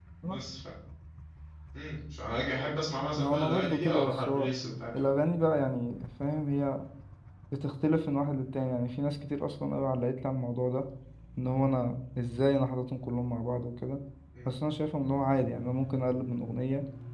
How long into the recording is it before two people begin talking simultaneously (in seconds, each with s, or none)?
3.2 s